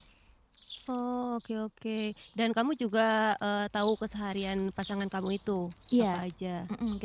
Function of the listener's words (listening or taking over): taking over